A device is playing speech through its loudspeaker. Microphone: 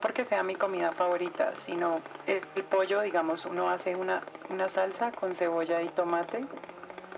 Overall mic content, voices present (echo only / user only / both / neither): echo only